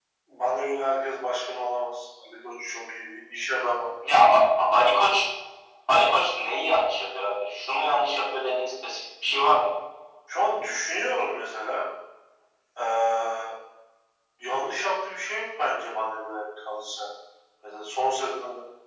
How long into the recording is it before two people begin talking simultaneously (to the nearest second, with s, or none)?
none